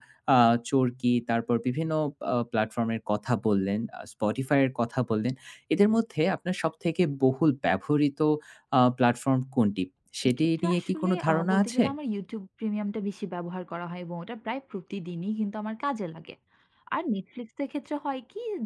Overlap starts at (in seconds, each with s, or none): 10.4 s